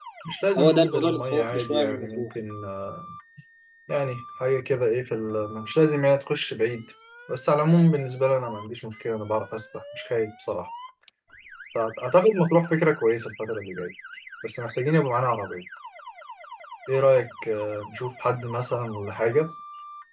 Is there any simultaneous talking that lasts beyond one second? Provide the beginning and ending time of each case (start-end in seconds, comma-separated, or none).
0.6-2.3